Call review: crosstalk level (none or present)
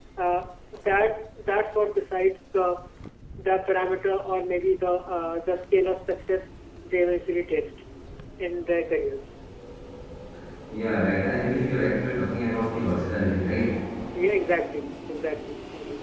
none